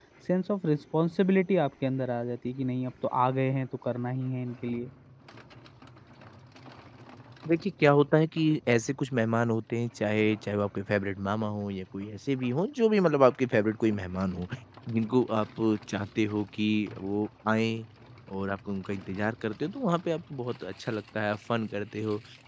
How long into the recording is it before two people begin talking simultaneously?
none

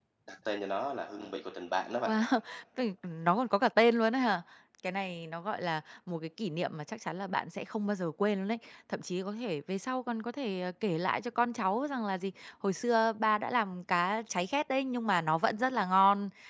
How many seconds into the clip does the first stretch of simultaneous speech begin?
none

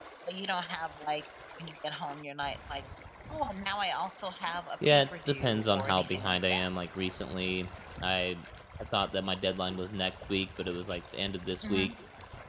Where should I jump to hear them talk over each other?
4.8 s

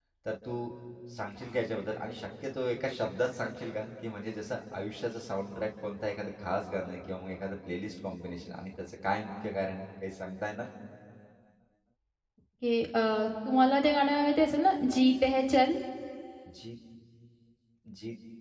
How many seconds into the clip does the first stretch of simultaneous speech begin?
none

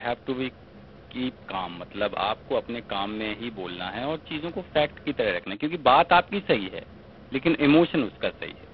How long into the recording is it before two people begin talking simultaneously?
none

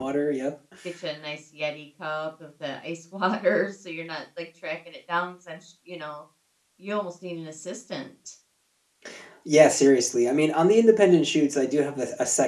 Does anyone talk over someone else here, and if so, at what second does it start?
none

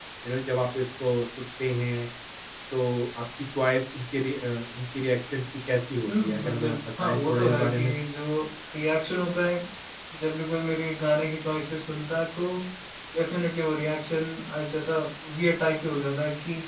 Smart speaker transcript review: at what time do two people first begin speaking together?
6.1 s

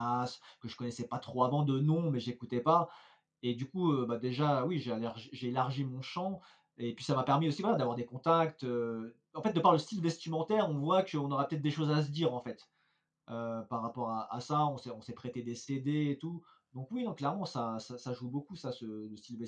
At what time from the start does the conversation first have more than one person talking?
none

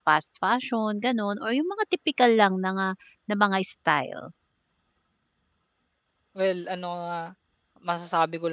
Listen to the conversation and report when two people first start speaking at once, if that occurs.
none

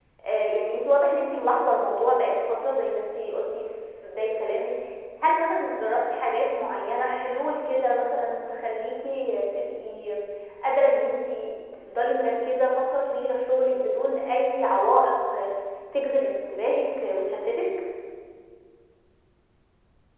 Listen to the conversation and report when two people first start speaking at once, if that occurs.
none

